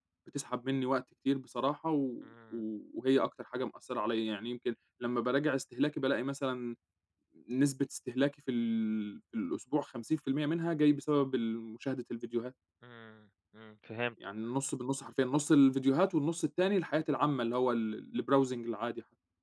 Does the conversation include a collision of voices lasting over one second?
No

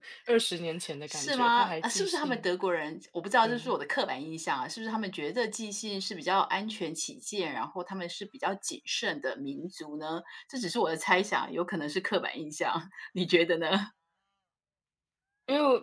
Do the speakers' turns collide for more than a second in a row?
Yes, from 1.1 s

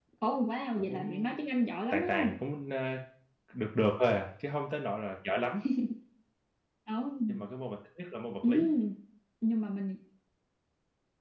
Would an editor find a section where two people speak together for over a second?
No

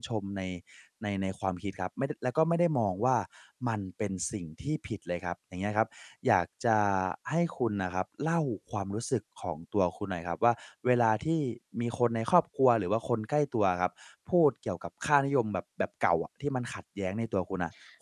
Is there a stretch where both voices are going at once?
No

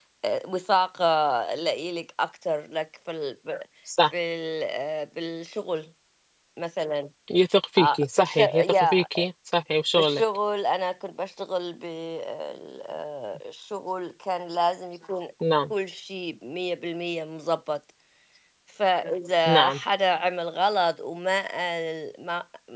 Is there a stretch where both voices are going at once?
Yes, from 7.8 s

